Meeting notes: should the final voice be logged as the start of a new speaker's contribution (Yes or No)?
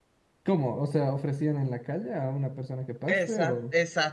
Yes